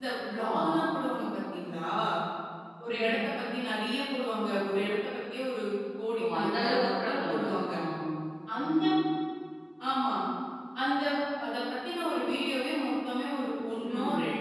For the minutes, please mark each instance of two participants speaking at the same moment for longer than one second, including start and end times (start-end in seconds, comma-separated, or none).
6.2-7.7